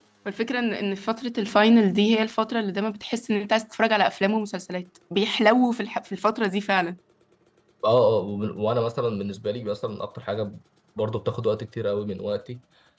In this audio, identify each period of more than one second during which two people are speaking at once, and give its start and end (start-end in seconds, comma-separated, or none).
none